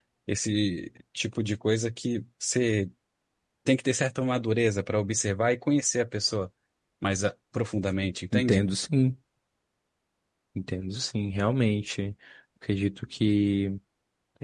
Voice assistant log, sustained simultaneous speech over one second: none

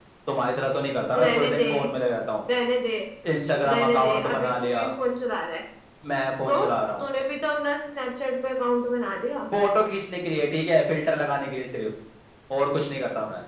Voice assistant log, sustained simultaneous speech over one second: present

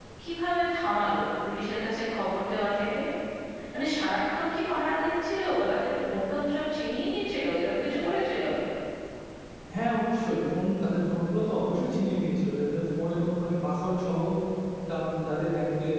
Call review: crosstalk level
none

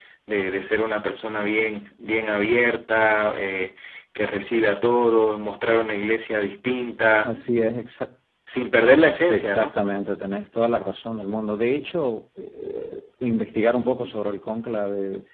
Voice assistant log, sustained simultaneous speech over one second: none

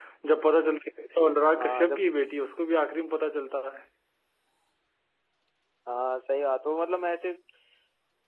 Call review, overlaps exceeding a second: none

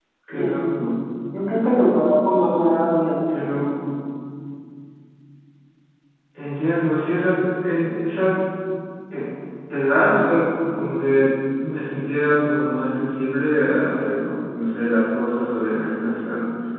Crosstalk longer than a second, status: none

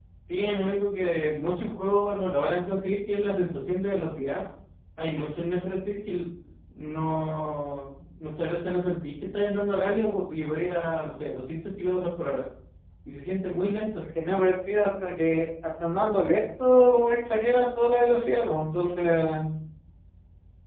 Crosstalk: none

